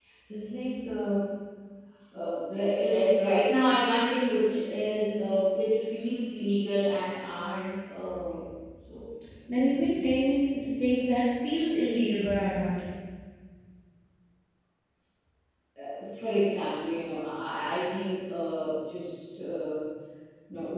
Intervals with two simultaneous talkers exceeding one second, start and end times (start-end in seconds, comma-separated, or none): none